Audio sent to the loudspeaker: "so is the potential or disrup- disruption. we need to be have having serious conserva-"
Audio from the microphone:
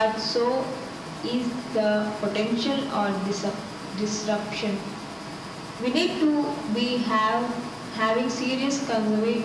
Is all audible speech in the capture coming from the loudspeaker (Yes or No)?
Yes